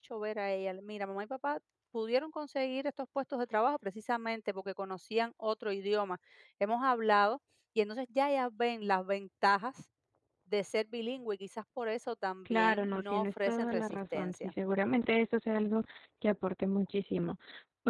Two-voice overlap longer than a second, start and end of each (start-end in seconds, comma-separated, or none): 12.5-14.5